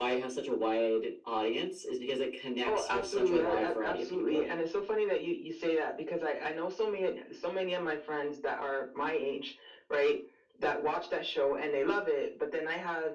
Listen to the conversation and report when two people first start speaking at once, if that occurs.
2.7 s

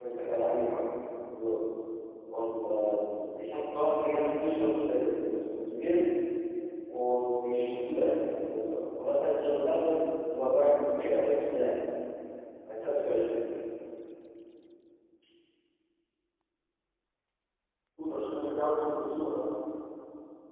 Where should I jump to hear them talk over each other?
none

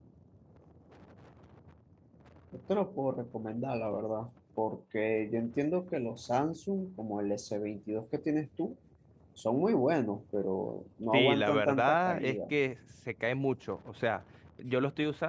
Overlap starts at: 11.1 s

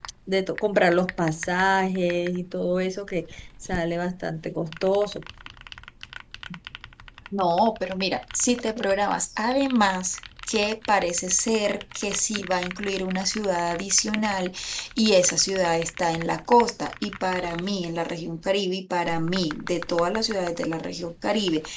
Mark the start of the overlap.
none

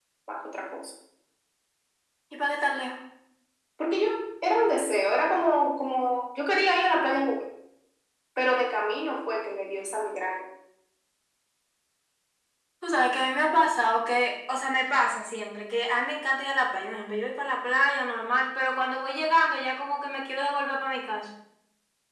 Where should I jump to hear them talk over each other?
none

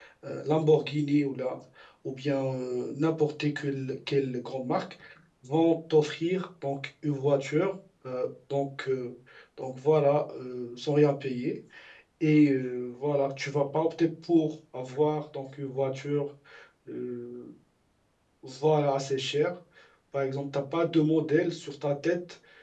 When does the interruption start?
none

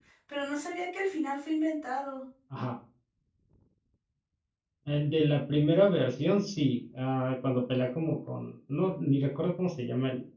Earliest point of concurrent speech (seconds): none

